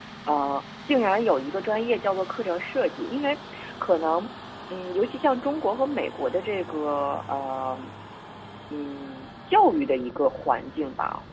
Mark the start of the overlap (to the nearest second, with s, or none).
none